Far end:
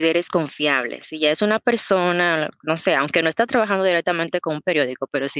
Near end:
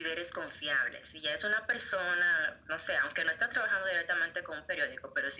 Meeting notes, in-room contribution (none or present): none